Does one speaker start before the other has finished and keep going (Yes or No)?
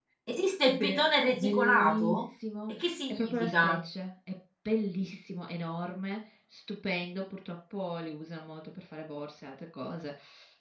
Yes